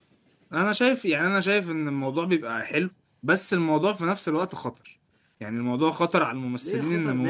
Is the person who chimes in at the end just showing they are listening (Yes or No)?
No